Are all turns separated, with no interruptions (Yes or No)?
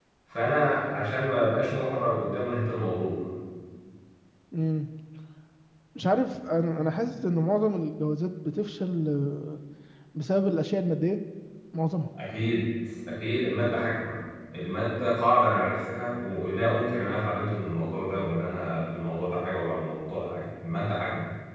Yes